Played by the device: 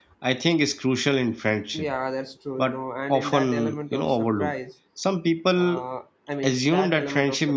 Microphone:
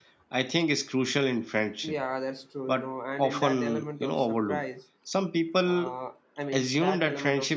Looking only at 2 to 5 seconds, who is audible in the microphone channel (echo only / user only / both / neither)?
echo only